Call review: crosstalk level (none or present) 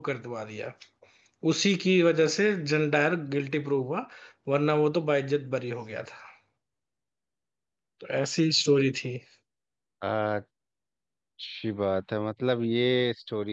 none